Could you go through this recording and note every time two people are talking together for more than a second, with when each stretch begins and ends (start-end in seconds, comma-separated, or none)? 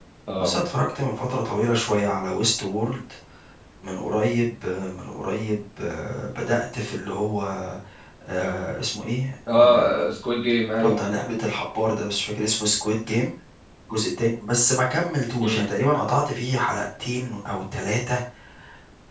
none